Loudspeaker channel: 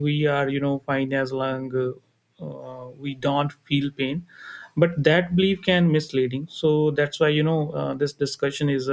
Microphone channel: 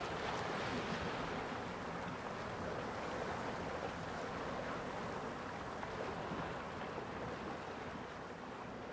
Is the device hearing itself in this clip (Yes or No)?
No